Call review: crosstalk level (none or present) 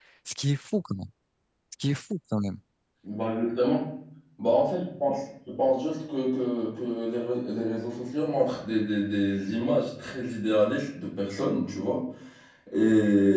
none